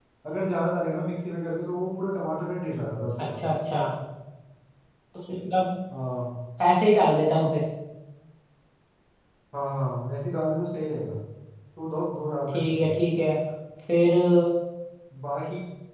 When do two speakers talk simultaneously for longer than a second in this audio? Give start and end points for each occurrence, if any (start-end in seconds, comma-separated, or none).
none